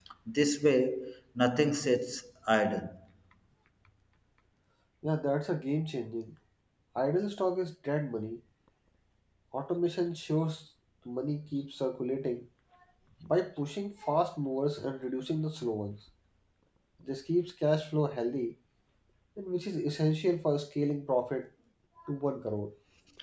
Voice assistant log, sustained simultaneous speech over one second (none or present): none